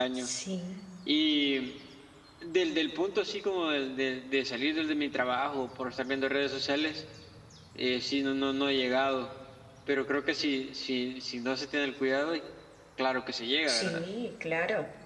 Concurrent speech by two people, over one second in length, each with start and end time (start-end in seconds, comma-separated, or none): none